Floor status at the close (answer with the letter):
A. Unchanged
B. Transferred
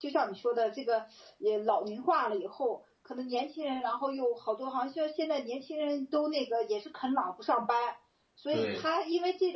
A